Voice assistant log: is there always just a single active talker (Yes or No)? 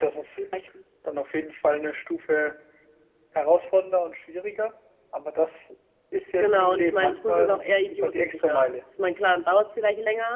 No